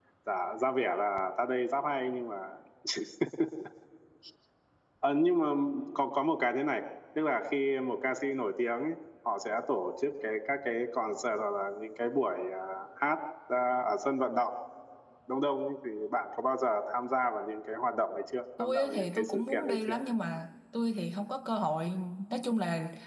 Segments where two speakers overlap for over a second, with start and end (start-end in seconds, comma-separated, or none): 18.6-20.0